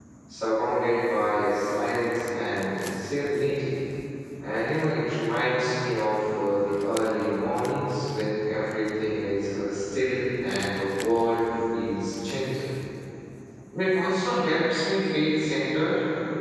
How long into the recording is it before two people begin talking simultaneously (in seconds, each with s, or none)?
none